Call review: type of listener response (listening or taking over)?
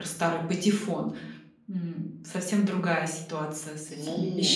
taking over